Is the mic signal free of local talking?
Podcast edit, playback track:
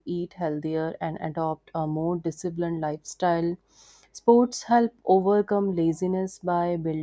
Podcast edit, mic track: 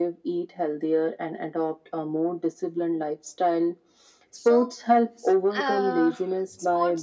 No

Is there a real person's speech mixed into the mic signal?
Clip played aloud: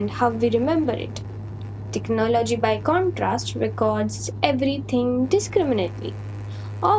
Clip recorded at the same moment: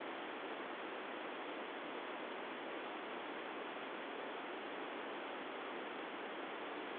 No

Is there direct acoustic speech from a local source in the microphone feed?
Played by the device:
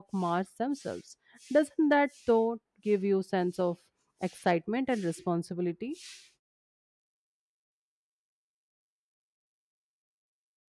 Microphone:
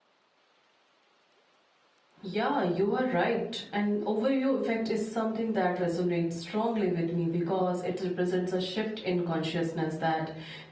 Yes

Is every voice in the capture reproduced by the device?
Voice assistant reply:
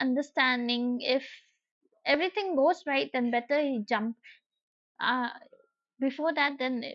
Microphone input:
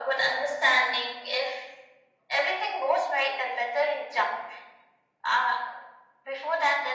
Yes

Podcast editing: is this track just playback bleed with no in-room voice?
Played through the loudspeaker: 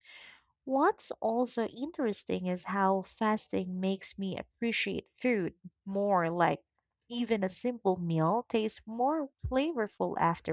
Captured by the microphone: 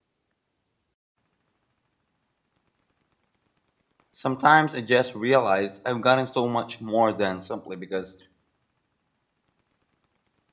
No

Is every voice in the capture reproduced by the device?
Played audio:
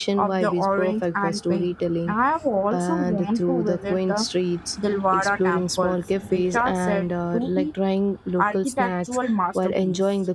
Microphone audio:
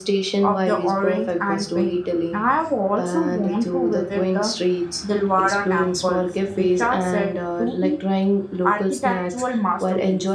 Yes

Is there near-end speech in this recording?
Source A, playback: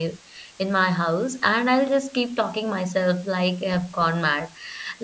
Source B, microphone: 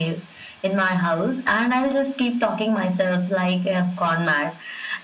No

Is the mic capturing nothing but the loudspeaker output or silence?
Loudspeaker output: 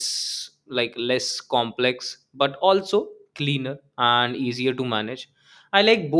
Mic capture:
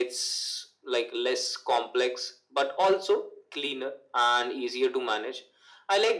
Yes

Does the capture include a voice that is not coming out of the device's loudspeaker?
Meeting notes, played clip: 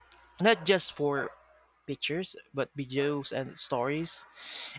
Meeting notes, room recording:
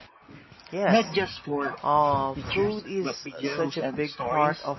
Yes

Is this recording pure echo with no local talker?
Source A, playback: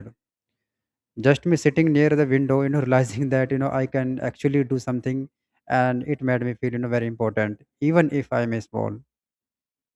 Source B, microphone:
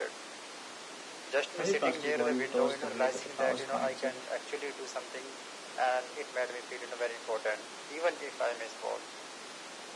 No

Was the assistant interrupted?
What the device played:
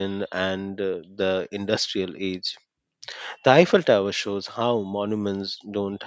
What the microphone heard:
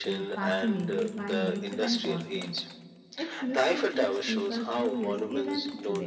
Yes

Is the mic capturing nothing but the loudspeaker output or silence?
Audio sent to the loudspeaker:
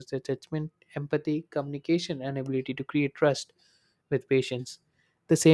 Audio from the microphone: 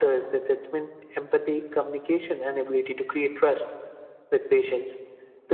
Yes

